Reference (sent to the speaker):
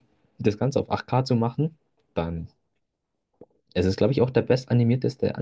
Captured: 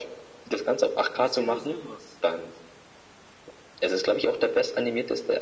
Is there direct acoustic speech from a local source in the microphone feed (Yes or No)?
Yes